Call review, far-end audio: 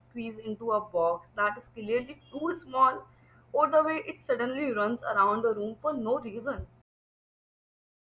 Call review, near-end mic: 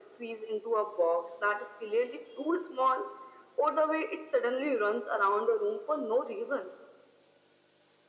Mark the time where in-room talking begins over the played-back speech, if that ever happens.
none

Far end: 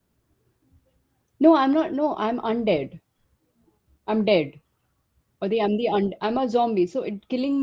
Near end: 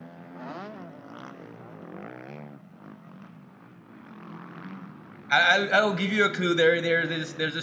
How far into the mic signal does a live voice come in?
5.3 s

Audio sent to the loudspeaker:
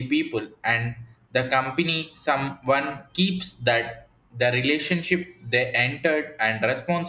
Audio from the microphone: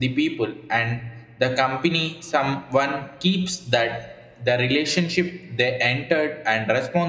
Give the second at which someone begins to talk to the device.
none

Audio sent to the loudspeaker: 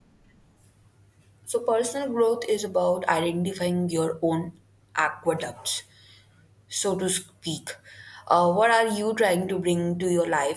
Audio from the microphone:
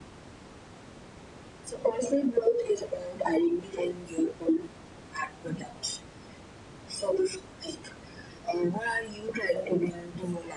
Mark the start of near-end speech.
none

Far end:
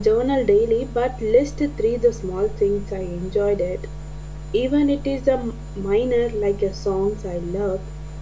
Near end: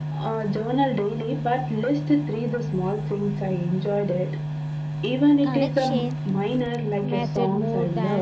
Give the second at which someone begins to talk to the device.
5.4 s

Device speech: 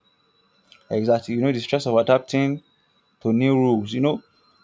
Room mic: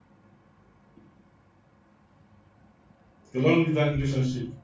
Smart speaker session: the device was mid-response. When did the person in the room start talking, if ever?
3.3 s

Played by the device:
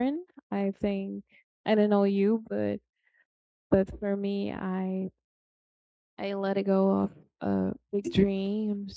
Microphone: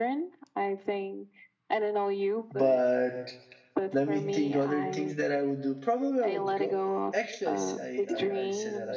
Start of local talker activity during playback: 2.5 s

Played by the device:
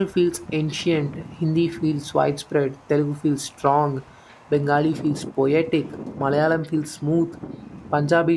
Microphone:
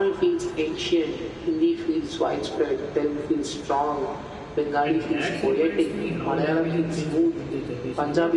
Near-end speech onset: 4.8 s

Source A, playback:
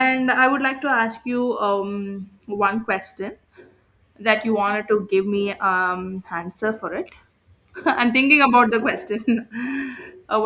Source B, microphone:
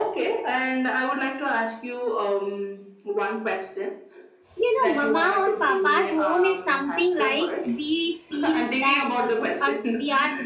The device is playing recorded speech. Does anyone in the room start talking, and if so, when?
4.6 s

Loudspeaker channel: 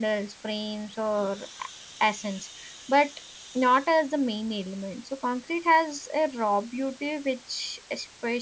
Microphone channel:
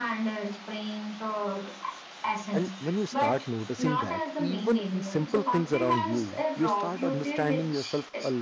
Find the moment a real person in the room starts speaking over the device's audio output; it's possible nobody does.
2.5 s

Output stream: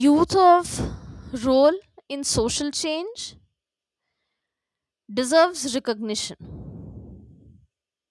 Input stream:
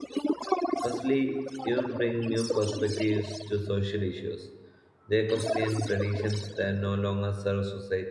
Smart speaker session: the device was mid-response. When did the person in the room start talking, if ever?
0.8 s

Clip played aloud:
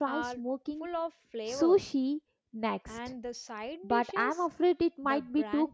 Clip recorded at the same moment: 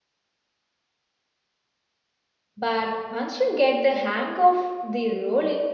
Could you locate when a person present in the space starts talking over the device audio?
2.6 s

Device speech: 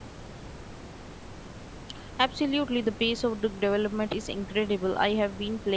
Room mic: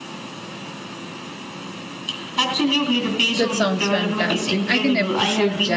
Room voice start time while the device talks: 3.3 s

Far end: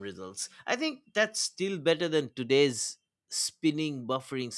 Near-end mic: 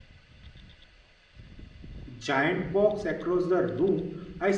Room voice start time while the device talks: 2.1 s

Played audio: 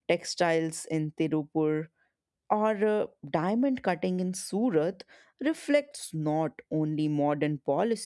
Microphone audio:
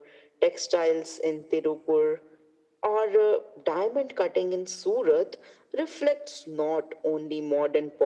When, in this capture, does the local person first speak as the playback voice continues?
none

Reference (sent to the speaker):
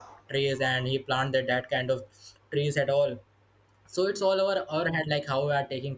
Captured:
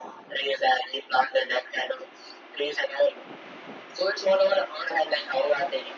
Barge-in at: none

